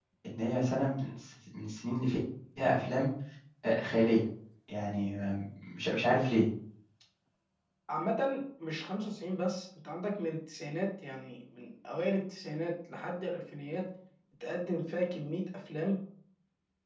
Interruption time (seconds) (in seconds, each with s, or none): none